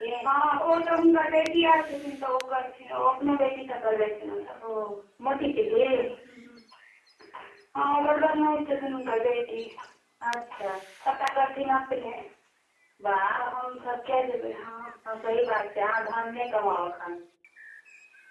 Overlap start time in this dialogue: none

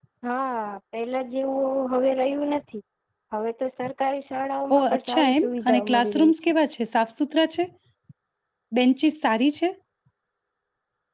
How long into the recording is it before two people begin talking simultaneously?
4.7 s

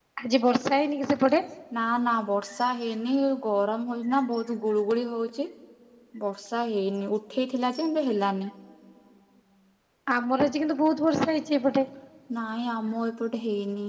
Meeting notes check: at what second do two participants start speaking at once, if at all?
none

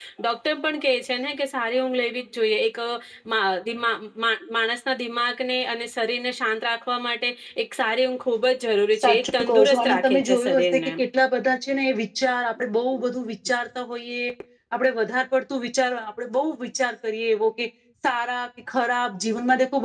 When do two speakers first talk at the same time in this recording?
9.0 s

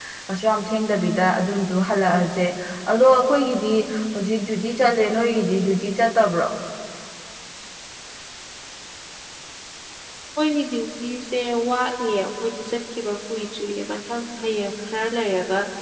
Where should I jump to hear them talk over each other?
none

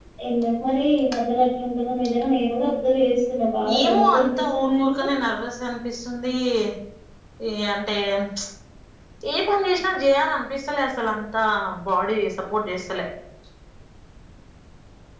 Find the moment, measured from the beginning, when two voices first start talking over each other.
3.6 s

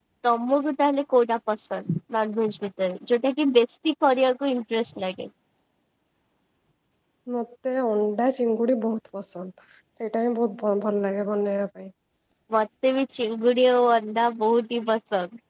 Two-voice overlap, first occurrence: none

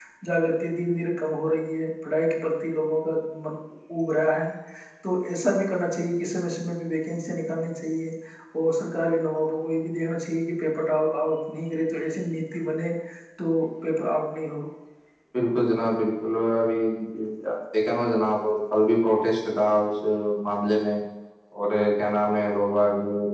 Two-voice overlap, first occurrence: none

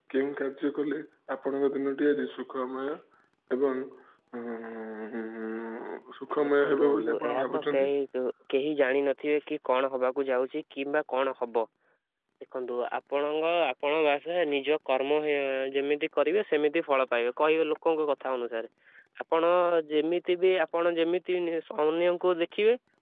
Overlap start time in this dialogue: 6.4 s

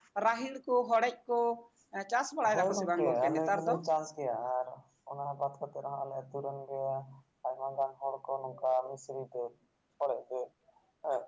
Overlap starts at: 2.5 s

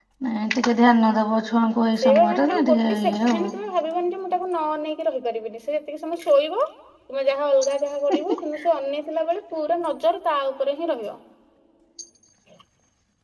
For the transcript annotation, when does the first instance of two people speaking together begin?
2.0 s

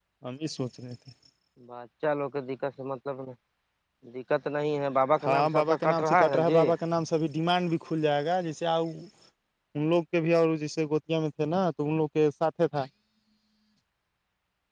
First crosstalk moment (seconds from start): 5.3 s

